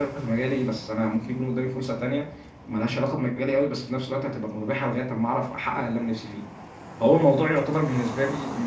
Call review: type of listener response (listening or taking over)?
listening